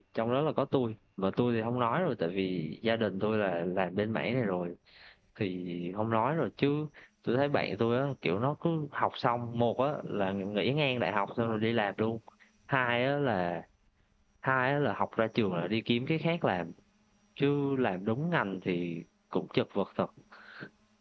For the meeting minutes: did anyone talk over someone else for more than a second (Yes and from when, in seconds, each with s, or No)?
No